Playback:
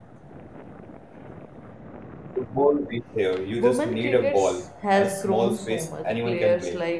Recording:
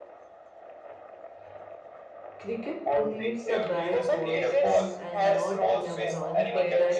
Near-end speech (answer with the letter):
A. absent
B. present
B